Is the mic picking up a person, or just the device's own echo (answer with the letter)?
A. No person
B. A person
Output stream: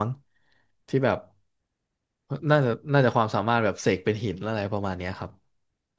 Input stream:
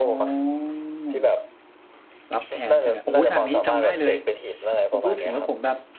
B